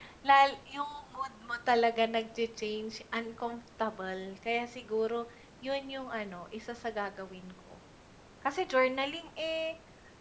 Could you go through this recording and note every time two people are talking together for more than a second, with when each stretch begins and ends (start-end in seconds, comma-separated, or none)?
none